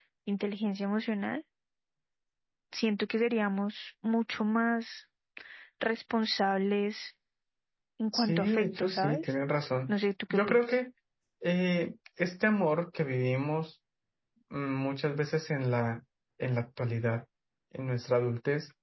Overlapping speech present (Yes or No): Yes